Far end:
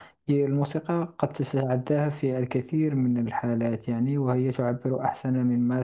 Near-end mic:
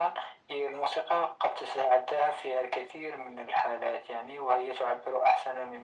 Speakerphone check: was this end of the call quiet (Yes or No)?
Yes